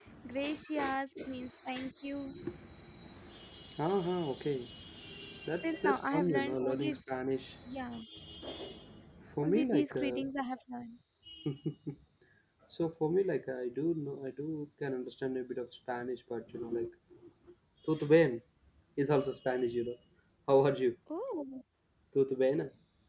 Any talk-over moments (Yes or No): Yes